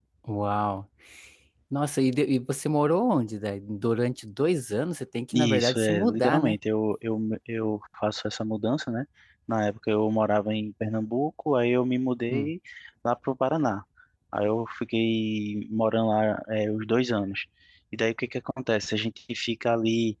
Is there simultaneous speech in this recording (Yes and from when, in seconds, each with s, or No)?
Yes, from 5.3 s